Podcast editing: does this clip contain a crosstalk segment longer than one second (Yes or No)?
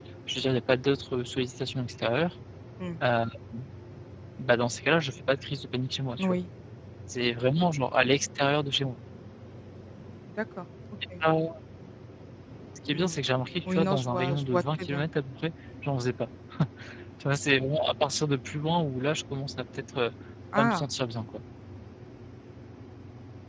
Yes